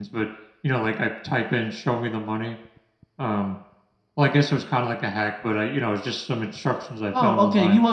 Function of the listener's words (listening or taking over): taking over